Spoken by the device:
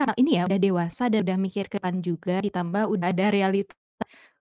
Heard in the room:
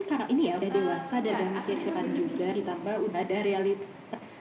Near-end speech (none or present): present